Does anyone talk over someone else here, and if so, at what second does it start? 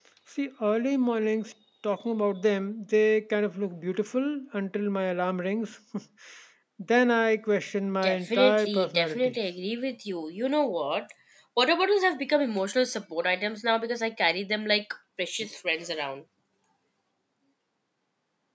8.0 s

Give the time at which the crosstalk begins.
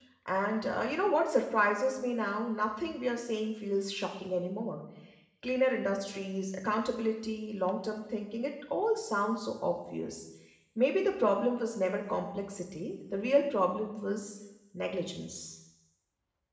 none

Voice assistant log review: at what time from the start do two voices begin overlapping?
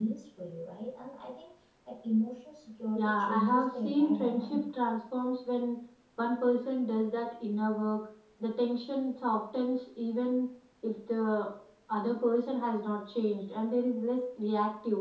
3.0 s

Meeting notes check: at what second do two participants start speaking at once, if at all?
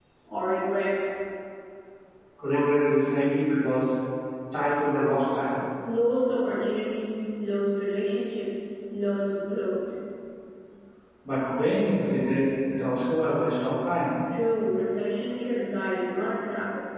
none

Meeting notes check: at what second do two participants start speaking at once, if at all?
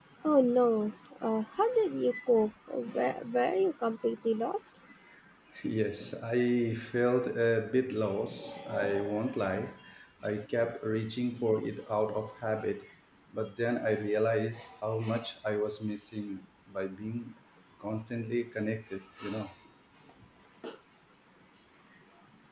none

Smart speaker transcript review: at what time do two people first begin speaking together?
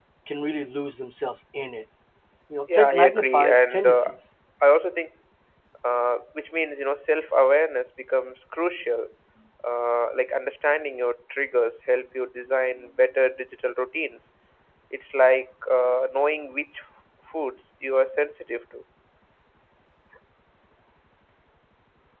2.7 s

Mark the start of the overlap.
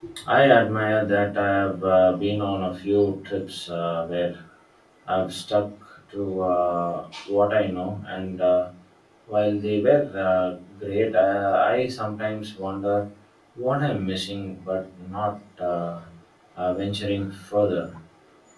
none

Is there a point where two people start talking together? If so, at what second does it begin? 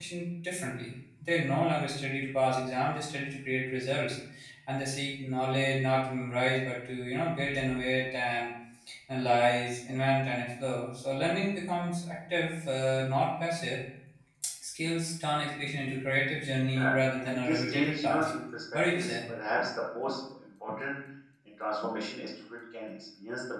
16.7 s

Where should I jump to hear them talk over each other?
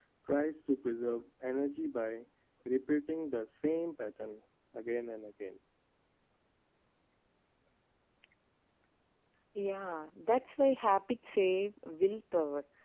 none

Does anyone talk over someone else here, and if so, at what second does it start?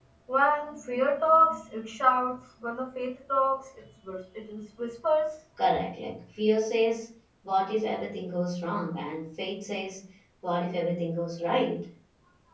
none

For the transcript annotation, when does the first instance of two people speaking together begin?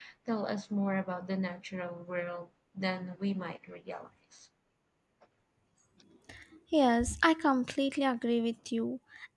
none

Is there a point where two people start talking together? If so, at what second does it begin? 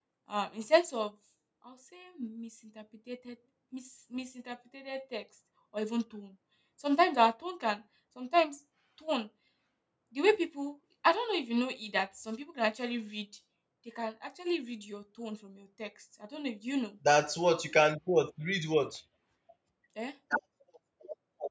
none

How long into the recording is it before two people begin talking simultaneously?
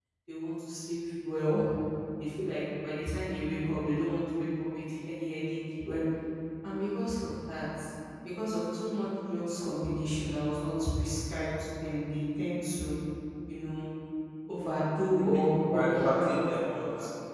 15.6 s

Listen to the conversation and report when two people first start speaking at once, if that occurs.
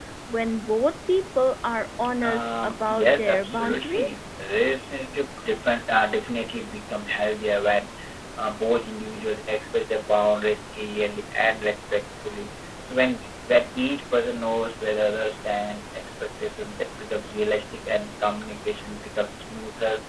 2.2 s

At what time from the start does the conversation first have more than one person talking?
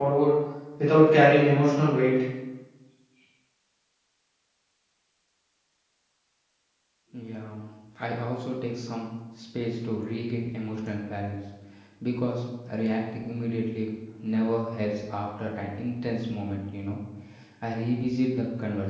none

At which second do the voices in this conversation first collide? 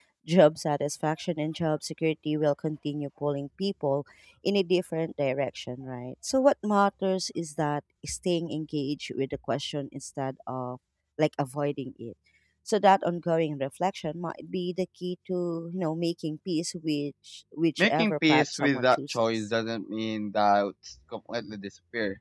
17.8 s

